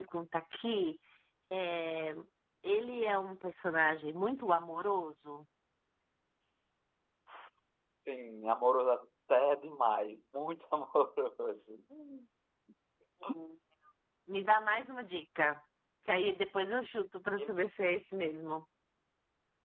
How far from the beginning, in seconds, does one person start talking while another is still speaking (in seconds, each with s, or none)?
none